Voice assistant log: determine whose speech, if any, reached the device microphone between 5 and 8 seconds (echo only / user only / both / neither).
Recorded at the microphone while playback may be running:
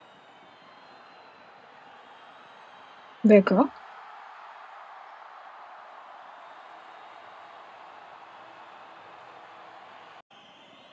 neither